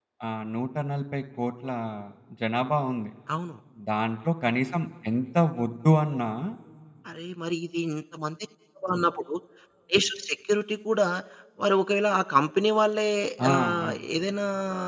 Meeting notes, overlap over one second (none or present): none